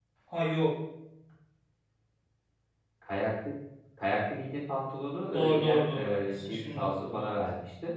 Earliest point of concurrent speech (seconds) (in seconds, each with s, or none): 5.3 s